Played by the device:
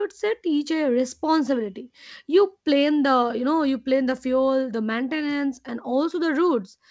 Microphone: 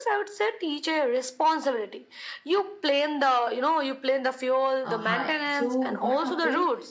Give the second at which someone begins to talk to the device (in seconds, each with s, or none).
4.8 s